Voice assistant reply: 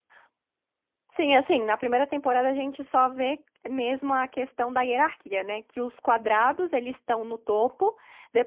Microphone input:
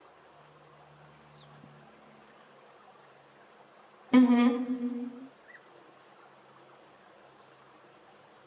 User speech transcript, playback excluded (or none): Uhum.